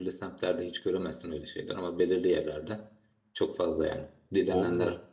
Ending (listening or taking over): listening